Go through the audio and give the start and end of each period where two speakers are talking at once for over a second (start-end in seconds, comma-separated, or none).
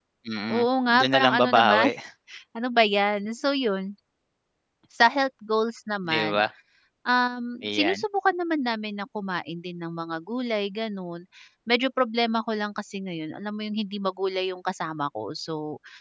0.5-1.9